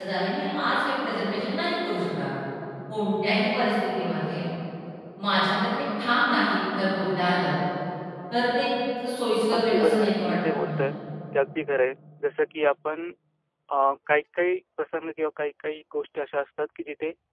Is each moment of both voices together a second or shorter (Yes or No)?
No